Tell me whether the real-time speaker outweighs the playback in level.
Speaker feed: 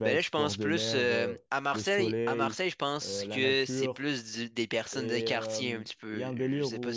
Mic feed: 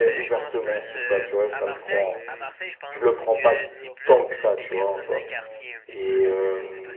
Yes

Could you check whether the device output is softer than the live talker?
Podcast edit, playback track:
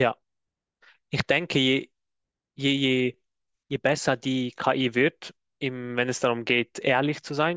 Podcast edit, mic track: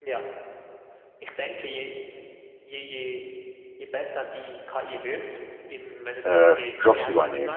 Yes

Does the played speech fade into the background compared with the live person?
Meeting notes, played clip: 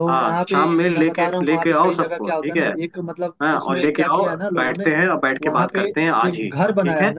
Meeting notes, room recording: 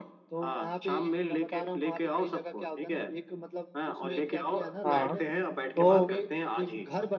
Yes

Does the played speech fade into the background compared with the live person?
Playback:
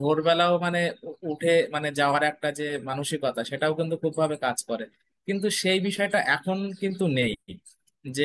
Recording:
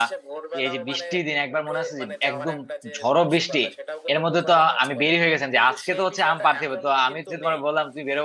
Yes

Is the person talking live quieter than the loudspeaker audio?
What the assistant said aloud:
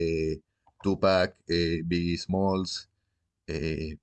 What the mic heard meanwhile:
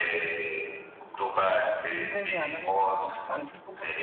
Yes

